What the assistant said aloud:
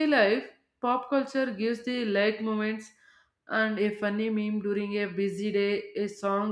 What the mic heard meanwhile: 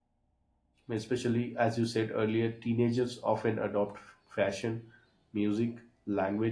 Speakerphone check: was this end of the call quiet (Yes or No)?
No